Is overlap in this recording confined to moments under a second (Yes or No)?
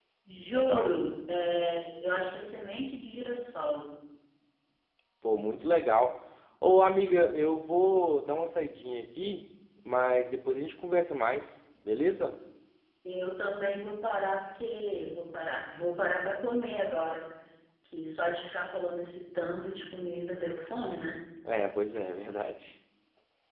Yes